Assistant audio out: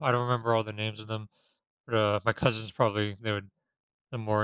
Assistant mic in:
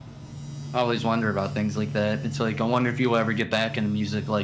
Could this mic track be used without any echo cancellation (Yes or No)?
Yes